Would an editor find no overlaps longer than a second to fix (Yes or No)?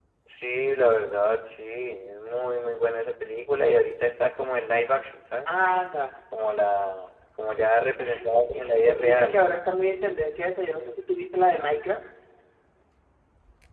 No